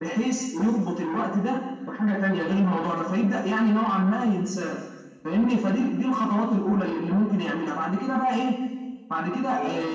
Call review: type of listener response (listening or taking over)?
taking over